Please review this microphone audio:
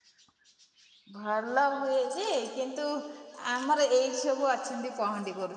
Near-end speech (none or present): present